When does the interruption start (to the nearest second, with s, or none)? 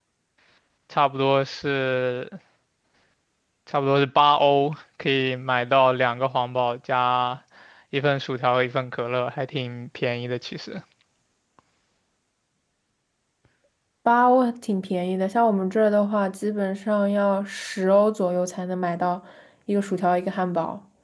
none